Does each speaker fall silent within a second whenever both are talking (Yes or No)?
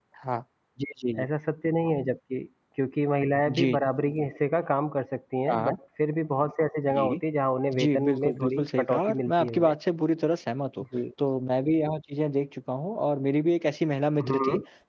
No